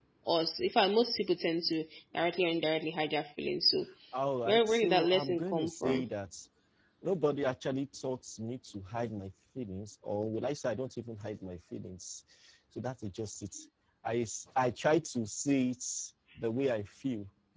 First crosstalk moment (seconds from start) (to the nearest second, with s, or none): 4 s